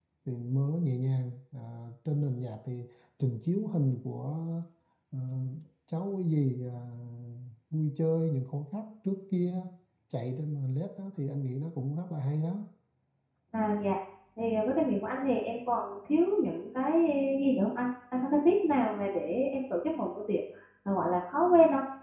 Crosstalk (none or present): none